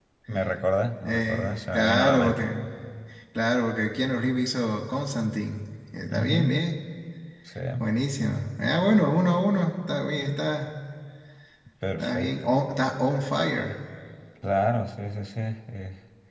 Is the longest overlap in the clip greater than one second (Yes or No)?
Yes